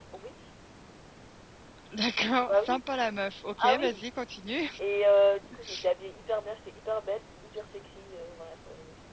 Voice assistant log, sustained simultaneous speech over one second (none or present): none